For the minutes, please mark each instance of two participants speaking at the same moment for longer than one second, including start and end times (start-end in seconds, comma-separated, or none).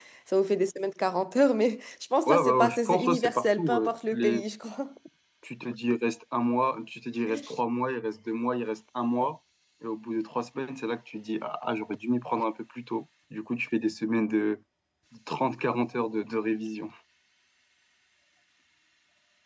2.3-4.4